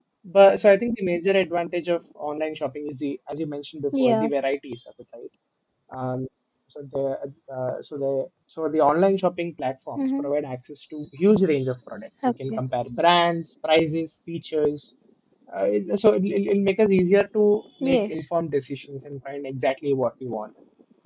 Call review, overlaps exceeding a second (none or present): none